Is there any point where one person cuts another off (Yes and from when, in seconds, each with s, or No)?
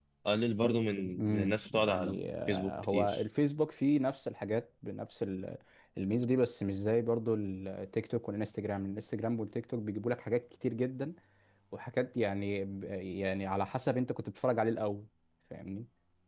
Yes, from 1.2 s